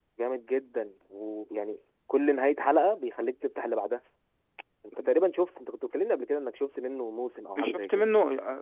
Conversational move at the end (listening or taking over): taking over